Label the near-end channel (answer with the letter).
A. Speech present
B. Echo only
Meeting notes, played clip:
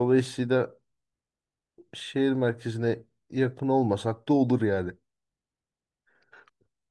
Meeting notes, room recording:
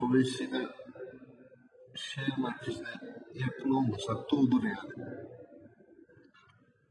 B